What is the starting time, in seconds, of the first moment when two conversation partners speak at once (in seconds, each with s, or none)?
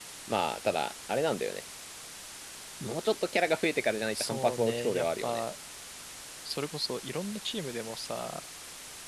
4.1 s